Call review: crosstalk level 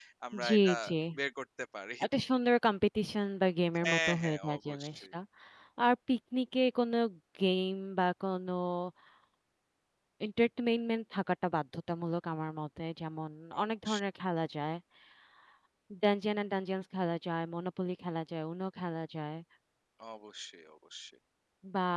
present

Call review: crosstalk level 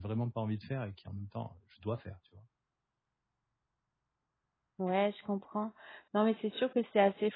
none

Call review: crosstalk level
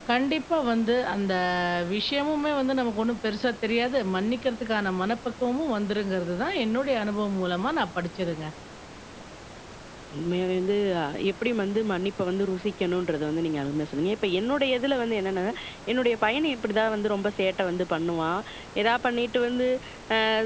none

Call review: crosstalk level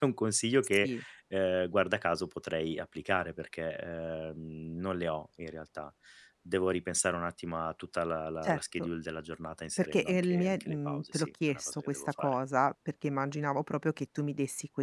present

